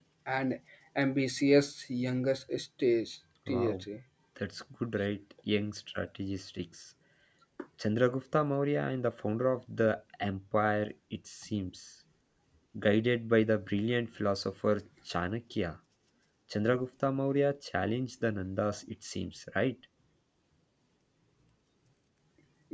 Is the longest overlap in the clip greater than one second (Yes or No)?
No